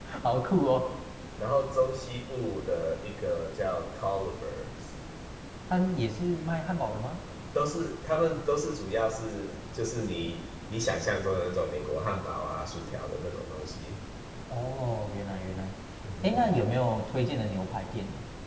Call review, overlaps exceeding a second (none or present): none